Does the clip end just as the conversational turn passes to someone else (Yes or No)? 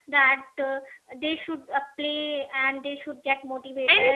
No